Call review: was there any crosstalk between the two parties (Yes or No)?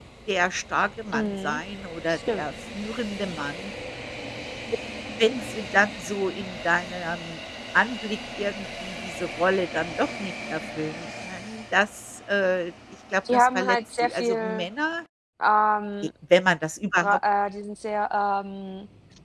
Yes